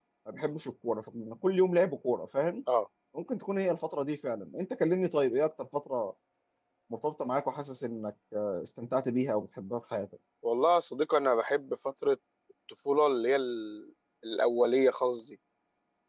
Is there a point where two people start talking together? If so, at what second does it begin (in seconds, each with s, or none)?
none